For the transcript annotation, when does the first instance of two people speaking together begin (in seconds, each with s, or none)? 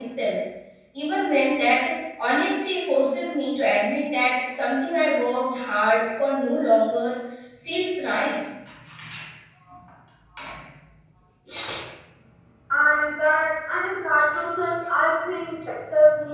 none